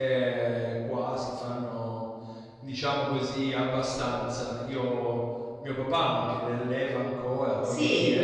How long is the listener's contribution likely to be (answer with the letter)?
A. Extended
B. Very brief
B